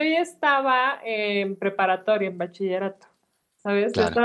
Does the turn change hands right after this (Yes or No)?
No